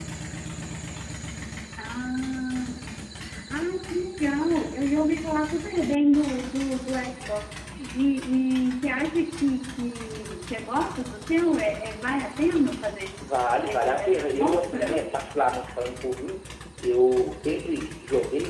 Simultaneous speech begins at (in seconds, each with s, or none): 13.6 s